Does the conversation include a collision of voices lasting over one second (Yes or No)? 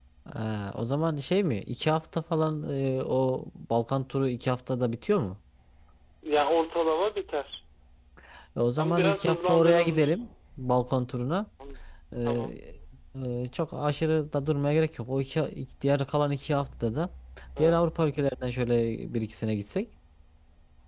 Yes